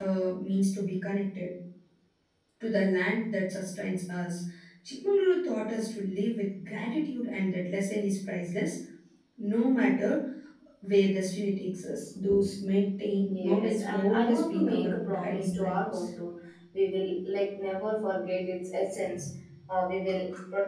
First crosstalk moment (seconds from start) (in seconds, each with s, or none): 13.3 s